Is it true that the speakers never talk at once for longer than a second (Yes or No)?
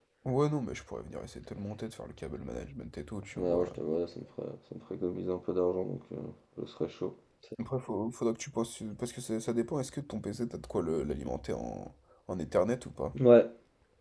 Yes